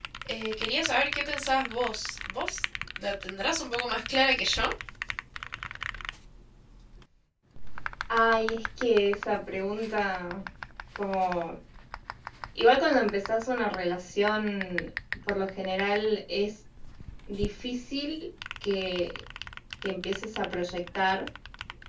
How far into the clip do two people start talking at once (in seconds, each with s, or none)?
none